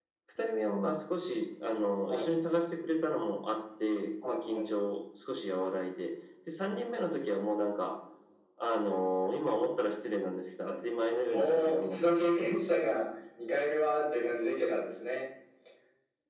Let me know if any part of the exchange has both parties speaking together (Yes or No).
Yes